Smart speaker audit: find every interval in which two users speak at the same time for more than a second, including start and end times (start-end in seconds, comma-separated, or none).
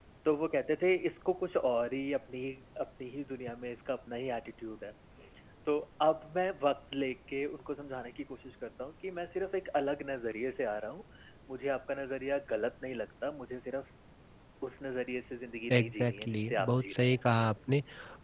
15.7-17.1